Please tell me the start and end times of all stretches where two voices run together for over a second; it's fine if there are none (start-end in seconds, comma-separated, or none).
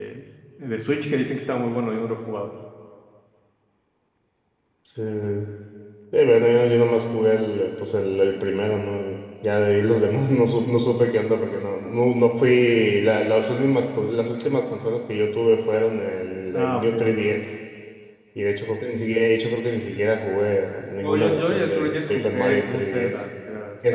21.0-23.2